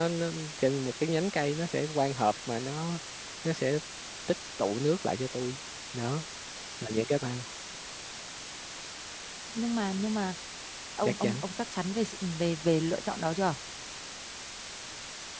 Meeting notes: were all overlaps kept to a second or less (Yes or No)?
Yes